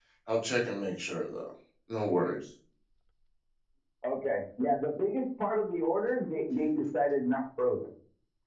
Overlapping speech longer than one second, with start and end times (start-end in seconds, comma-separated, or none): none